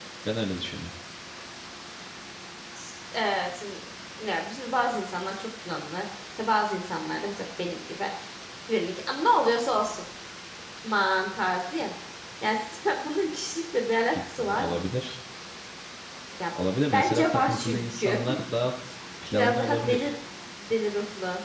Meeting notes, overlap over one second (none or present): present